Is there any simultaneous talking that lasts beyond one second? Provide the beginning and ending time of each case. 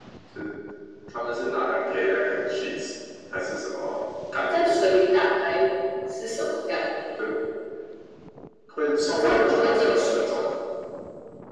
9.1-10.4

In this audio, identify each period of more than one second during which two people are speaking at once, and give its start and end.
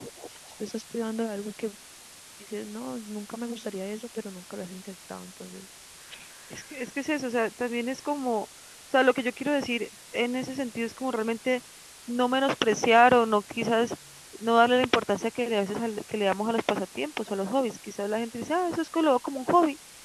none

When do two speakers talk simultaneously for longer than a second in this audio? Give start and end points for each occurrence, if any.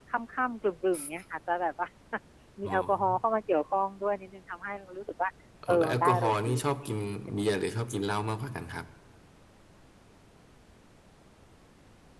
5.7-6.9

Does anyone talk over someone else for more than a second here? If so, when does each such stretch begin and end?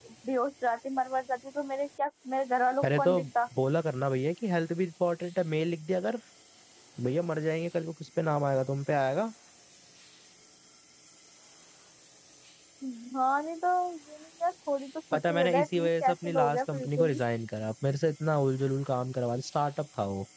15.1-17.2

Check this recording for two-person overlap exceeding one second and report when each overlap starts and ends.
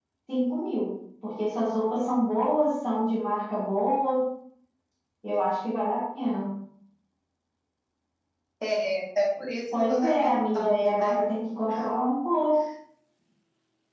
9.9-11.2

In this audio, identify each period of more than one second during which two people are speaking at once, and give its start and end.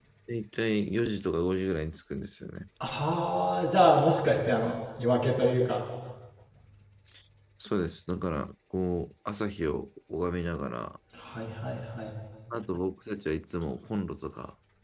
none

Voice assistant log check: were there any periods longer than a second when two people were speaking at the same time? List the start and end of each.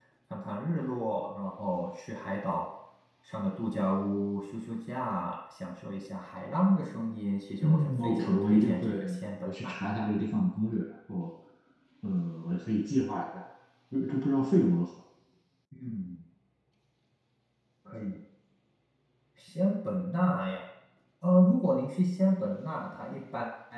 7.6-8.9

